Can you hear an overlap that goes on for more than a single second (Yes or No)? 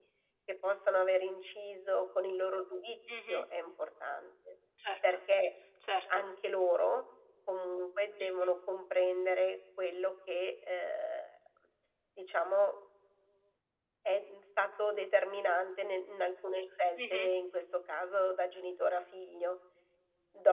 No